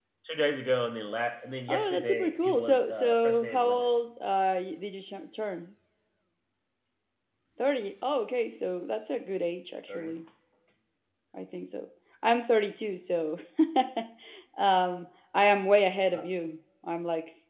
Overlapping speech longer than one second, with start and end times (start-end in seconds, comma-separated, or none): 1.7-3.9